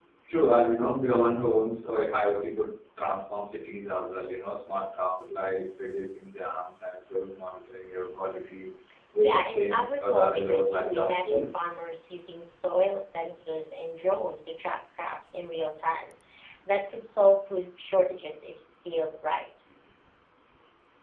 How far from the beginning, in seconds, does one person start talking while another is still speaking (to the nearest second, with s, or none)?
9 s